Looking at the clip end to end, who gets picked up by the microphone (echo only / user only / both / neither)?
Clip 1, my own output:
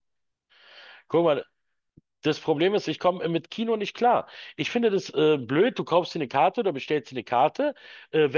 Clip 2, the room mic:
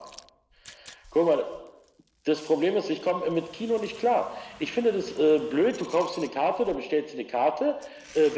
echo only